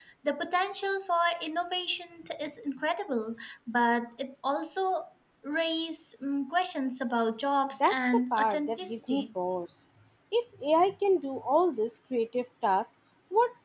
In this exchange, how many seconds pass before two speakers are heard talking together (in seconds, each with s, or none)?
7.8 s